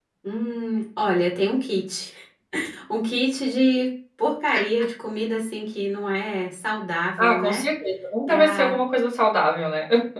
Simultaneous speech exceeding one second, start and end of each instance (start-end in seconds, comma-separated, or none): none